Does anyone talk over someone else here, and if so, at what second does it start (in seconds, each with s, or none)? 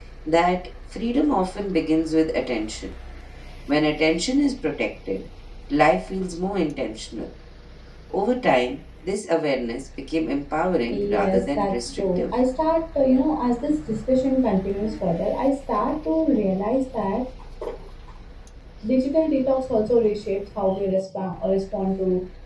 10.9 s